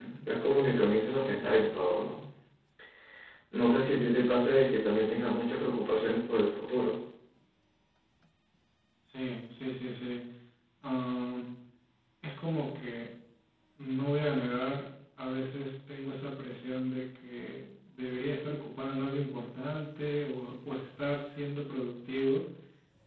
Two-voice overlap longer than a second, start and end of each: none

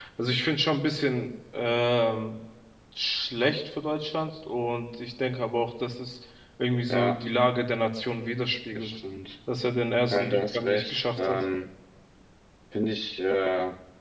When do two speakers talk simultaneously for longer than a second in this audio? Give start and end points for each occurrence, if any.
10.1-11.5

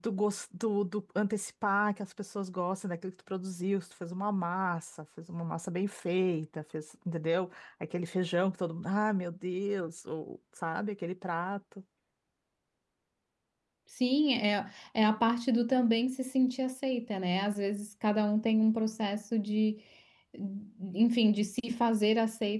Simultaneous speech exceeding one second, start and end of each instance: none

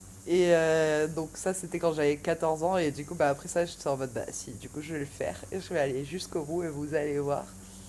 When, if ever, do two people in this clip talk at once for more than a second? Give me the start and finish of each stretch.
none

